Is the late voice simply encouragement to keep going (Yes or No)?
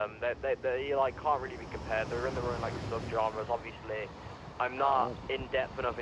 Yes